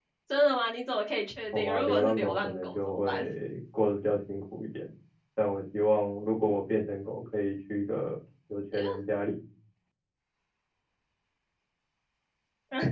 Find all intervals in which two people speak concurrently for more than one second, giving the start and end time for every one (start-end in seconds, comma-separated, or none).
1.5-3.2